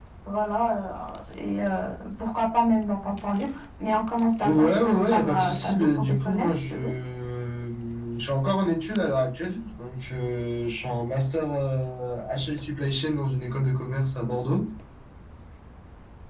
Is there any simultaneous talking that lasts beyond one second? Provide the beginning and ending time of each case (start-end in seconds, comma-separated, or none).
4.4-6.9